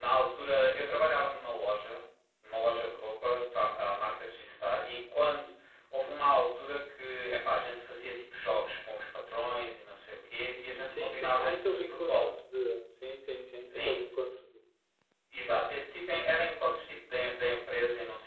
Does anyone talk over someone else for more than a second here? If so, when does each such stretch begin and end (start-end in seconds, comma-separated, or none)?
10.8-12.3